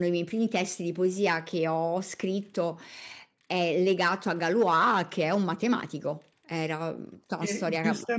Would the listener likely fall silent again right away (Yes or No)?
No